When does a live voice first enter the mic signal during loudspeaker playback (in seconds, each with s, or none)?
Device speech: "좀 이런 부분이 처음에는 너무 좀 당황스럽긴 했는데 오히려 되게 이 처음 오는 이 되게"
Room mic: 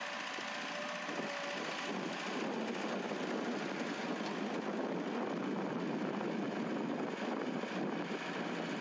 none